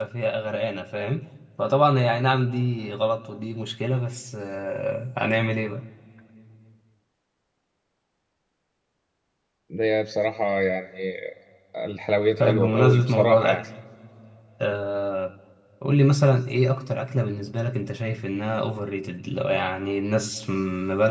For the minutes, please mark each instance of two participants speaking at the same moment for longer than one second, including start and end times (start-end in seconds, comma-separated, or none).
12.4-13.6